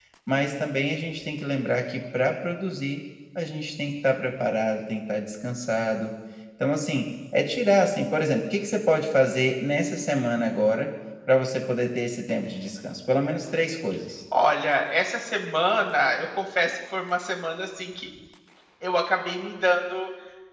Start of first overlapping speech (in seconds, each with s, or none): none